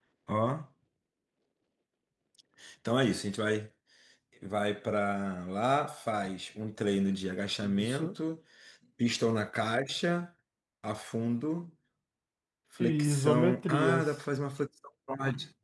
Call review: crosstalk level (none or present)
present